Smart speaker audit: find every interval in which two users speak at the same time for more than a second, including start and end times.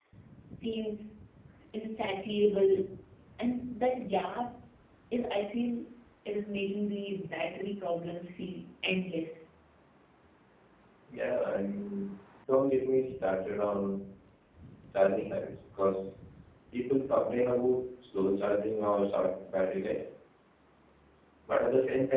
none

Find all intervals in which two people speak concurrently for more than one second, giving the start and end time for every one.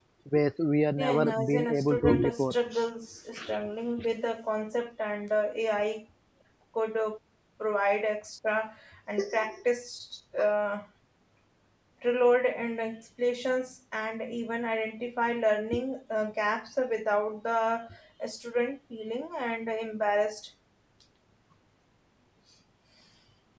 1.0-2.6

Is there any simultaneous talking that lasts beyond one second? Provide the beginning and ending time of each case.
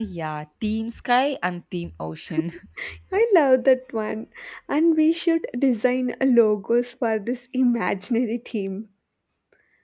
none

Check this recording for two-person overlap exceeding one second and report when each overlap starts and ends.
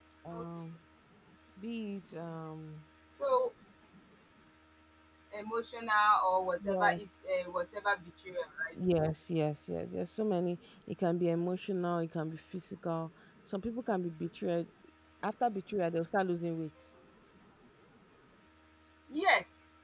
none

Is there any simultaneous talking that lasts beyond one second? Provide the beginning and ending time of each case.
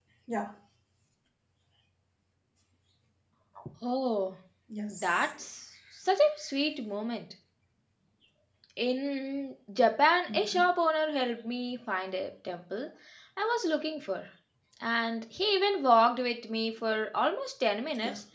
none

